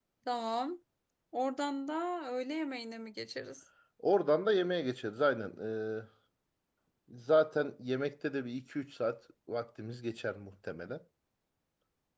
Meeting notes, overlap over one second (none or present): none